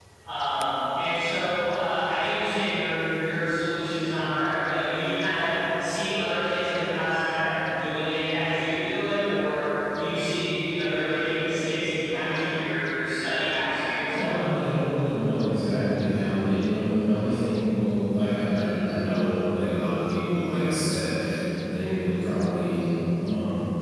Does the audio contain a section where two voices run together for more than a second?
No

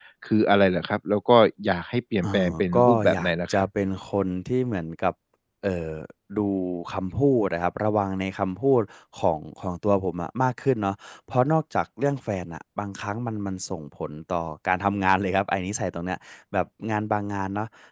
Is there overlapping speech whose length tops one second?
Yes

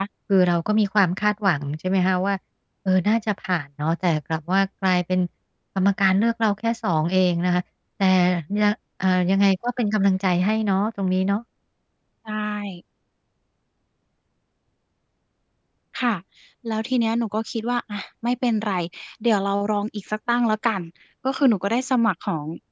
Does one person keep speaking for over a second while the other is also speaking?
No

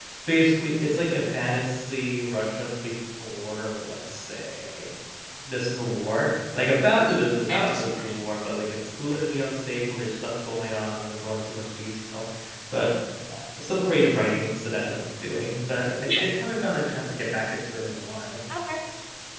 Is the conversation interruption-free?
No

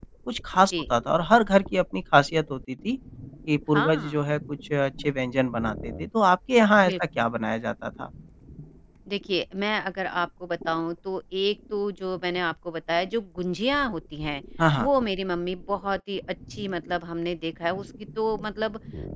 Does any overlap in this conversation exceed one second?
No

